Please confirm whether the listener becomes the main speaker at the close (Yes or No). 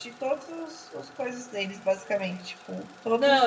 Yes